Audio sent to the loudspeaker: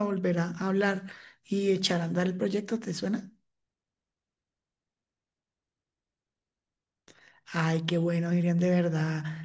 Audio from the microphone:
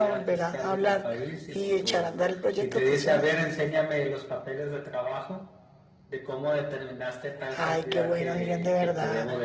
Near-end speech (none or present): present